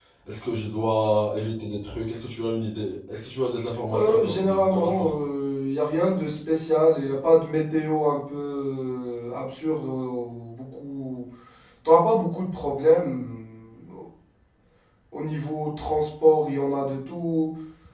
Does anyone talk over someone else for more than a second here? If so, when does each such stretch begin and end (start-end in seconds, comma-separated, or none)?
3.9-5.1